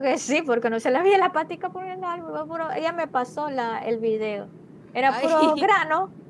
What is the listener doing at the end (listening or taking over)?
listening